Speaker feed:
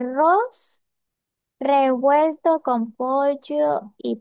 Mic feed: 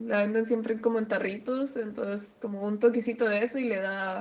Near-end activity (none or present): present